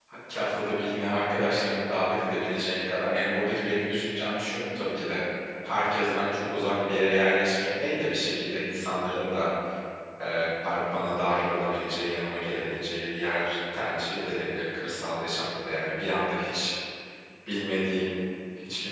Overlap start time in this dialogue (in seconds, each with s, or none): none